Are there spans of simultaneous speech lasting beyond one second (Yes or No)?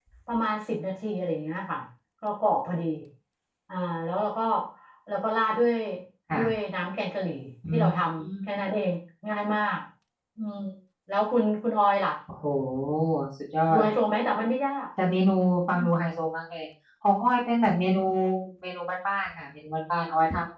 No